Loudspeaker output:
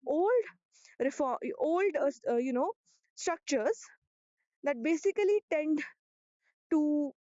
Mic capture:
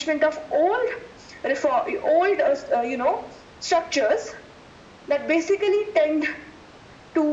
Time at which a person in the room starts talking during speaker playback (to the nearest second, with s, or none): none